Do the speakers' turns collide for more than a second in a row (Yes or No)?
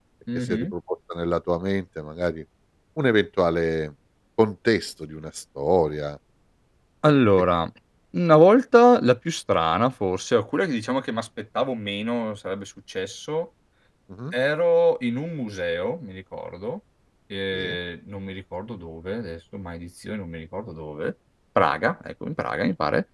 No